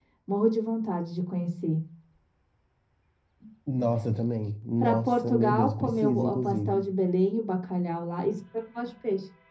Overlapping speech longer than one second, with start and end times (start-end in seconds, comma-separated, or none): 4.8-6.8